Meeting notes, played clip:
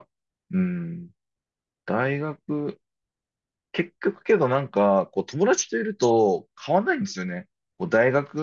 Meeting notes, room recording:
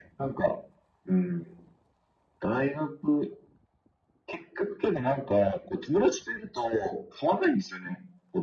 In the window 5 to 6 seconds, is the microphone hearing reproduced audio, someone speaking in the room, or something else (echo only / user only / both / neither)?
echo only